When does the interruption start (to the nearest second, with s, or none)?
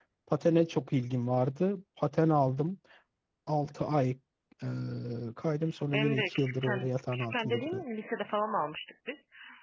6 s